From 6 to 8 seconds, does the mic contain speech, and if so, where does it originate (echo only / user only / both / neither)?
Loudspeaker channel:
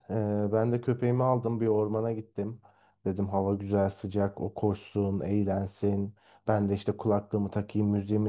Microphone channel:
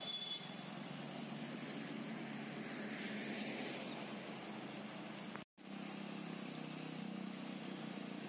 neither